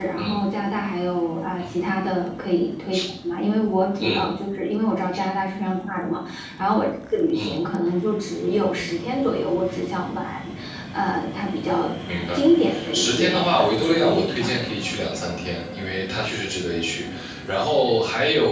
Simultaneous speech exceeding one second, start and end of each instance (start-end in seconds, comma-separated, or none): 12.9-14.6